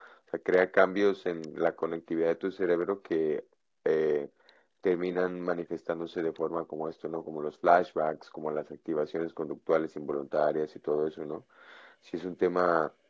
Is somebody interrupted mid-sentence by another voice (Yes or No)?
No